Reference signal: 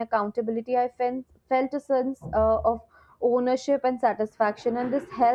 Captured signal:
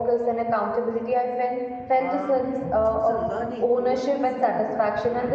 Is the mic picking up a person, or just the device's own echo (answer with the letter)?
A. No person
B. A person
B